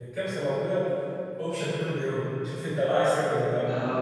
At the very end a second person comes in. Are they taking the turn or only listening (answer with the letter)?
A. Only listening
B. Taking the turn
B